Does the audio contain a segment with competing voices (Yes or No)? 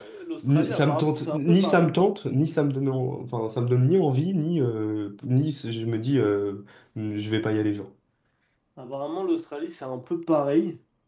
Yes